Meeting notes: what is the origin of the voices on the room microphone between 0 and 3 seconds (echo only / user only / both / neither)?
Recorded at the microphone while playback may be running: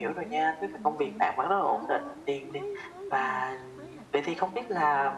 both